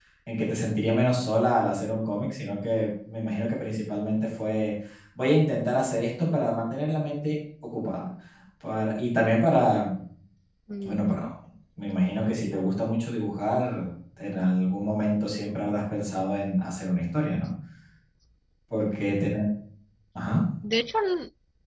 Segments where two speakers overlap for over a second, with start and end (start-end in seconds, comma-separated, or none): none